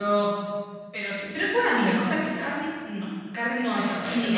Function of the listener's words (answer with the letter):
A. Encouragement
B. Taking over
B